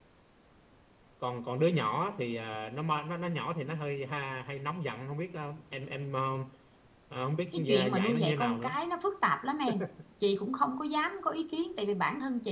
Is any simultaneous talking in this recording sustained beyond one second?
Yes, from 7.5 s

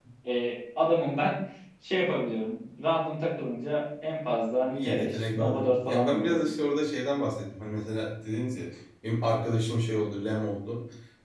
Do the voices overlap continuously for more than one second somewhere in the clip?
Yes, from 4.6 s

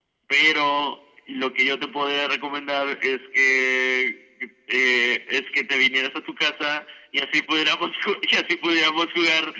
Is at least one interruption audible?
No

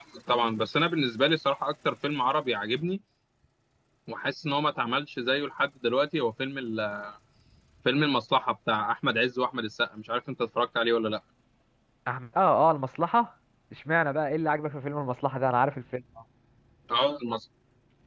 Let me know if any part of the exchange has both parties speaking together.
No

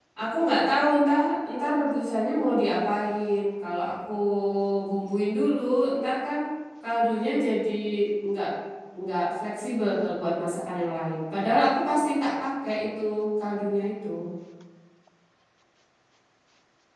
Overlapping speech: No

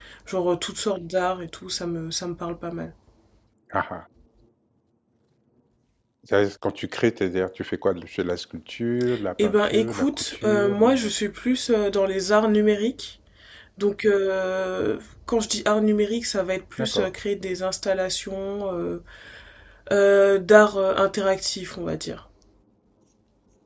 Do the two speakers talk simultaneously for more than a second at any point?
Yes, from 9.4 s

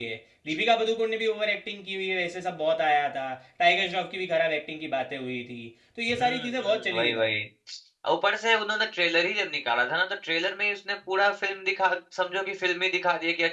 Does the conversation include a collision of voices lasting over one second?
Yes, from 6.1 s

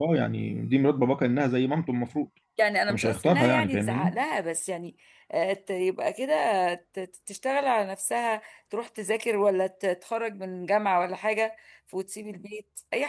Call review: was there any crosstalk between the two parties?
Yes, from 2.9 s

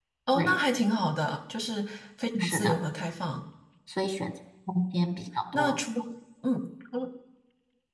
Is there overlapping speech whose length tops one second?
No

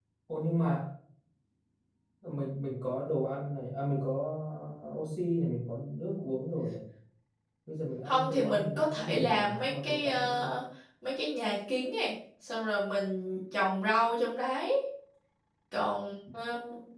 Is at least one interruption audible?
Yes, from 8.1 s

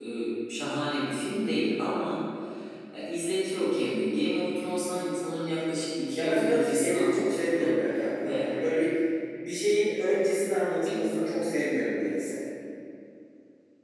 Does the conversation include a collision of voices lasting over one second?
Yes, from 6.2 s

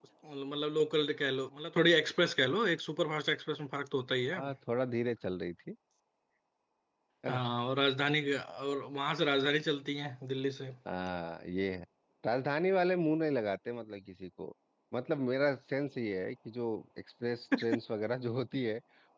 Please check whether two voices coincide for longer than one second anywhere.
No

